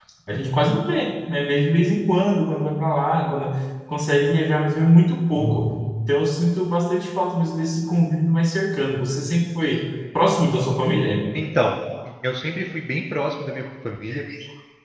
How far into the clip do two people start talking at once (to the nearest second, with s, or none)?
none